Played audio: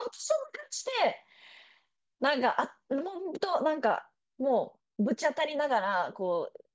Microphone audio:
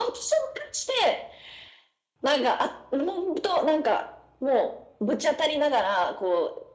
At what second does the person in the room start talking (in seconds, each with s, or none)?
none